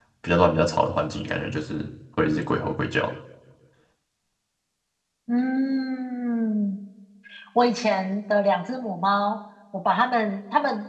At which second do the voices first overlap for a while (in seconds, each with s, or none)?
none